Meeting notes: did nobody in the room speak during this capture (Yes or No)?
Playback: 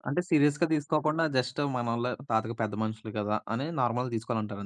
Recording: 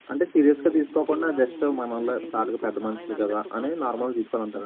No